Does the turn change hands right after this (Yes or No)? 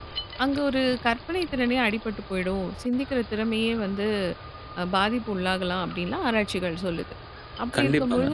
No